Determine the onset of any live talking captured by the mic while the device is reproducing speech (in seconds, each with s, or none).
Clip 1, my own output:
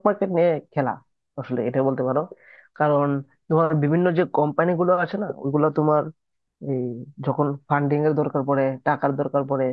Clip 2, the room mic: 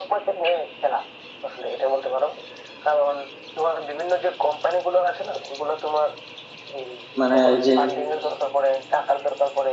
7.2 s